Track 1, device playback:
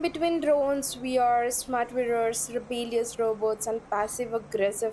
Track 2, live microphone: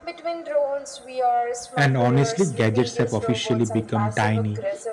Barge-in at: 1.8 s

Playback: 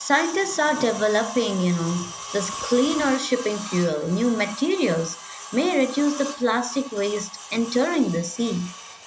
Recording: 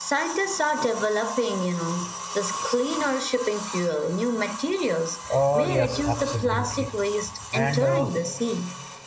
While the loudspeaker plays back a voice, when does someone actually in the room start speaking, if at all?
5.3 s

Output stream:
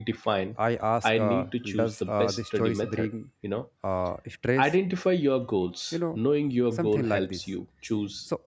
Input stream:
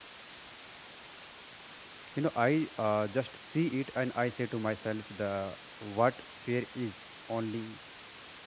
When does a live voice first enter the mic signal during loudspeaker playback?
2.1 s

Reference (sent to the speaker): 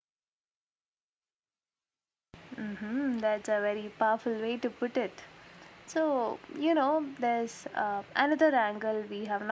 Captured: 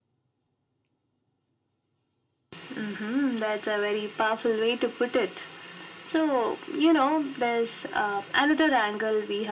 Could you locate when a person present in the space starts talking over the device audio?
none

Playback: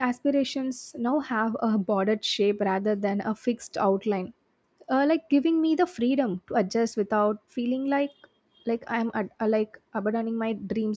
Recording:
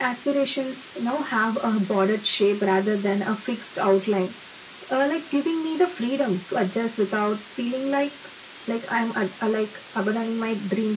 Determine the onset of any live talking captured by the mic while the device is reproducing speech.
none

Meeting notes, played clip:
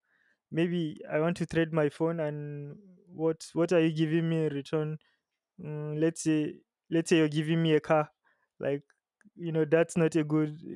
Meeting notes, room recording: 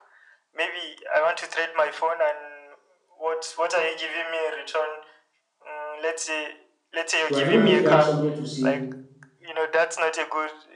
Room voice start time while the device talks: 7.2 s

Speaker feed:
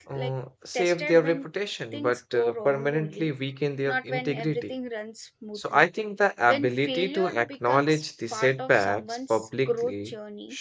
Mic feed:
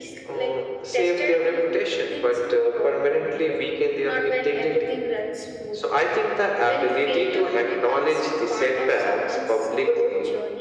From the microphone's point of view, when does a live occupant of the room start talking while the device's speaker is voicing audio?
none

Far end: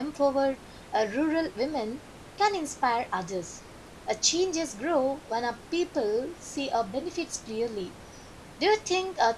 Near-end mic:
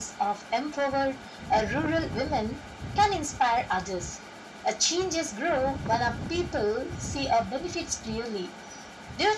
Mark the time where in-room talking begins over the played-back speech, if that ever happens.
none

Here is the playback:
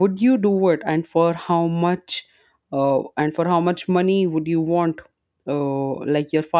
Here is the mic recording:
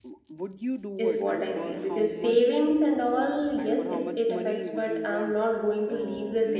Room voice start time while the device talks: 1.0 s

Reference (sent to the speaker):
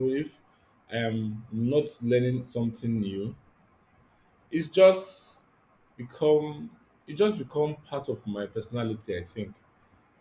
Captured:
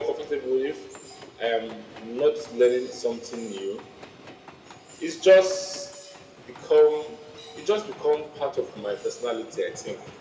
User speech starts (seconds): none

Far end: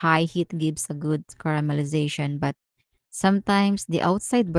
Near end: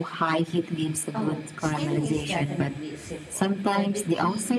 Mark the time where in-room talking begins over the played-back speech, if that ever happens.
1.1 s

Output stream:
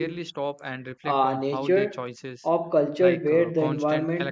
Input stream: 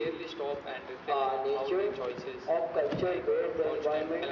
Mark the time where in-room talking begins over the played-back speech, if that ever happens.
none

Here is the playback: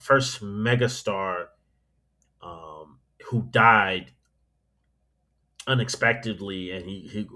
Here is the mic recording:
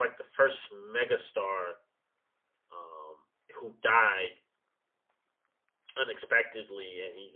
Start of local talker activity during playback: none

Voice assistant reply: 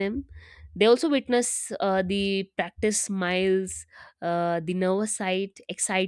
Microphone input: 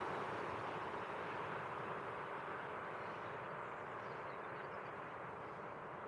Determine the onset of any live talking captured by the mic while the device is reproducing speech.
none

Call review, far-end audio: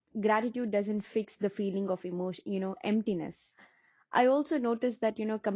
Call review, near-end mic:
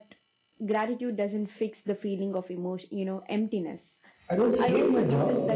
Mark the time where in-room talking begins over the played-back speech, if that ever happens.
4.3 s

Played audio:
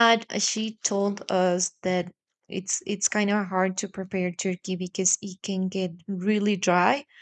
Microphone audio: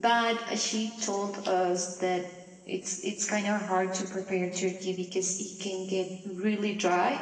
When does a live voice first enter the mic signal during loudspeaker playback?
none

